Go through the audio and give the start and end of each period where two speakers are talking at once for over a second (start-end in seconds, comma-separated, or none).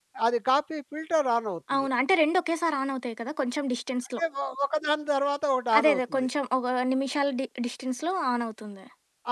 none